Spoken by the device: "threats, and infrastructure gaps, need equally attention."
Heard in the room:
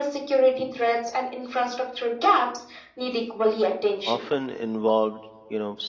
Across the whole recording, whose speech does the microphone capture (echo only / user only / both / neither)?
both